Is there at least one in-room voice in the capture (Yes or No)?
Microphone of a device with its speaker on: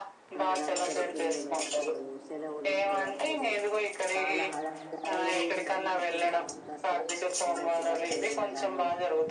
Yes